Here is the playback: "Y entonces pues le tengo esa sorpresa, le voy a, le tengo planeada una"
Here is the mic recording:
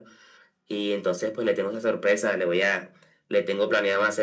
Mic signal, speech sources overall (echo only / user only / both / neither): echo only